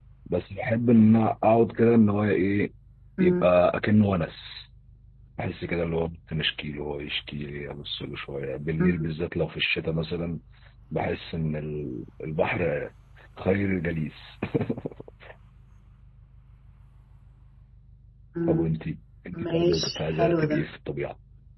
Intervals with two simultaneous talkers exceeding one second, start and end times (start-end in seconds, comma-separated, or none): 19.4-20.6